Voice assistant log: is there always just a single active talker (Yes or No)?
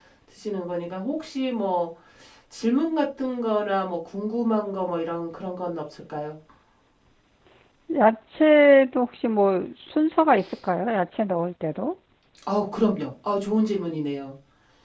Yes